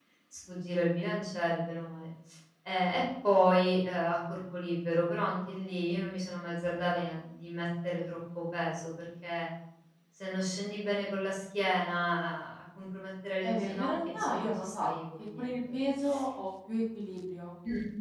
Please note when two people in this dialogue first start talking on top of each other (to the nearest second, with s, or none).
13 s